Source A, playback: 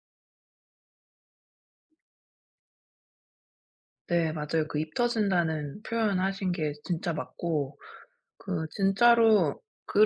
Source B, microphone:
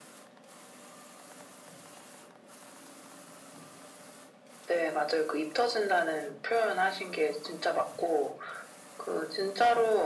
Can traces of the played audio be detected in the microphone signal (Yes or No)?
Yes